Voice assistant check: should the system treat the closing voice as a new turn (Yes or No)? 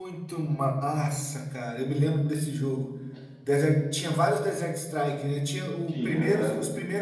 No